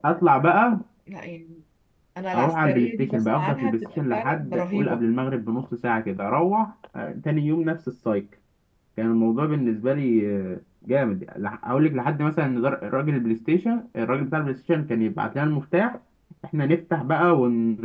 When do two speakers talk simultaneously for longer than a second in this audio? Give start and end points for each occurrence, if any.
2.3-5.0

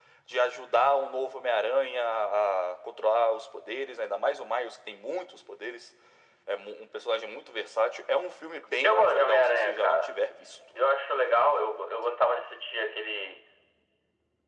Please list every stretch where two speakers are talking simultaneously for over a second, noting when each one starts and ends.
8.8-10.1

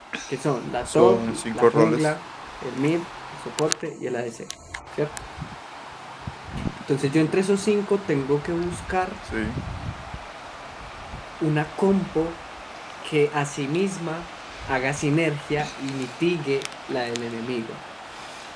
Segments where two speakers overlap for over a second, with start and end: 0.9-2.1

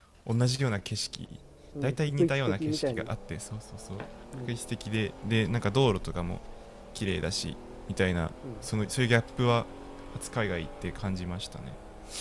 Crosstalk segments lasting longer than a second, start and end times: 1.8-3.1

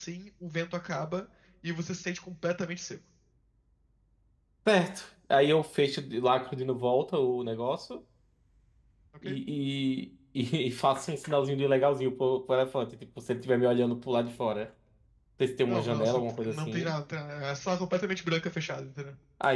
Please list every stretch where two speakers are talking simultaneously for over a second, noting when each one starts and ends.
15.7-16.9

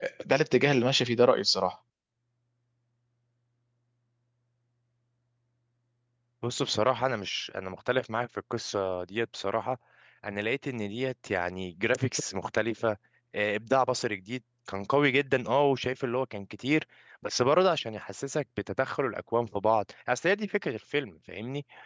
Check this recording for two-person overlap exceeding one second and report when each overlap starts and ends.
none

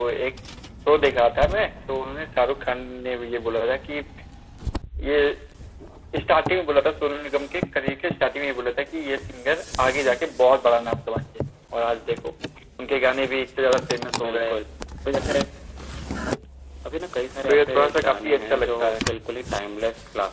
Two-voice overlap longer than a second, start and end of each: 17.5-19.0

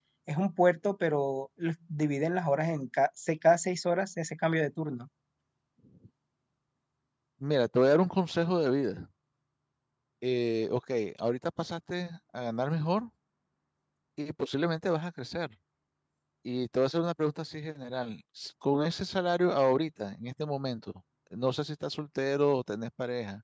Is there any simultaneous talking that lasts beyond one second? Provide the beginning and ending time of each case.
none

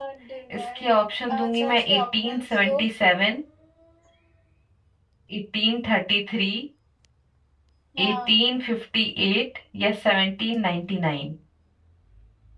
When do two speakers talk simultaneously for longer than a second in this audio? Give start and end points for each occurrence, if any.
0.6-2.7

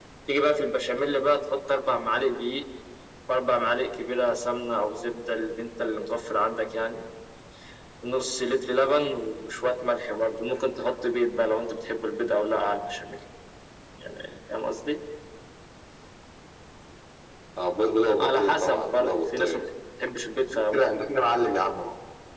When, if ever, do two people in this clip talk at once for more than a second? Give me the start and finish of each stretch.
18.2-19.6

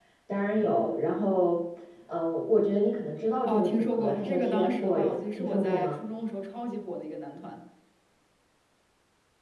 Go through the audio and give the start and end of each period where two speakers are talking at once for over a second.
3.5-6.0

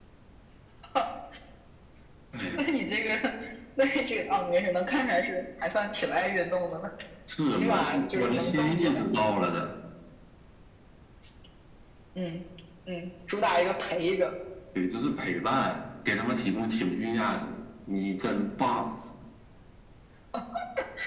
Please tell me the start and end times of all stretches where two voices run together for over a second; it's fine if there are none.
7.5-9.0

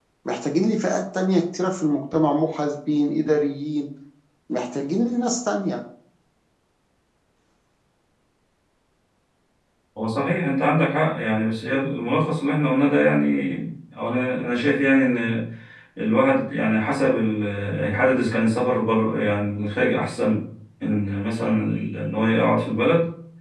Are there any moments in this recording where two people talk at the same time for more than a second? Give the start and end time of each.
none

